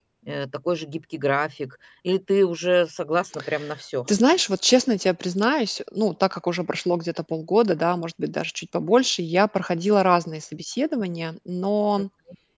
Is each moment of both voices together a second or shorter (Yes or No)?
Yes